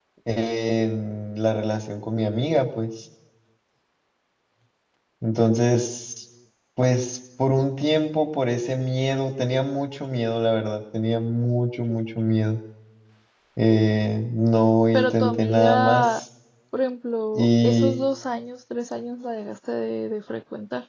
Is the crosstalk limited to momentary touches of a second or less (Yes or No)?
No